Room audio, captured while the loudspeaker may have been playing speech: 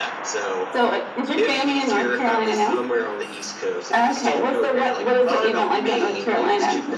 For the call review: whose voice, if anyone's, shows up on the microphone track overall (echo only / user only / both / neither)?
echo only